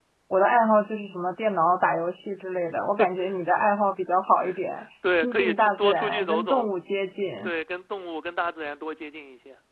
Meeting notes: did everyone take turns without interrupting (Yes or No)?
No